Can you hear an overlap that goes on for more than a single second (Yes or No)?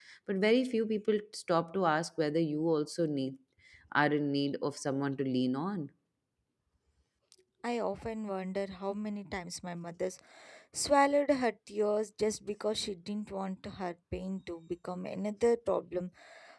No